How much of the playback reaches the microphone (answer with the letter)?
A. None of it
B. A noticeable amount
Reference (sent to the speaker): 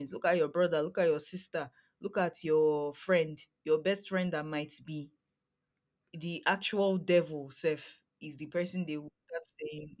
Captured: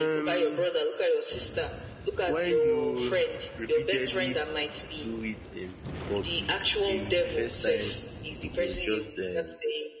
B